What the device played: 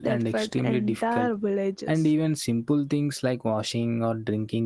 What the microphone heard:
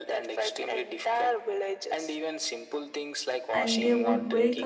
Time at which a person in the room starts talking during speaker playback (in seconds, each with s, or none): 3.5 s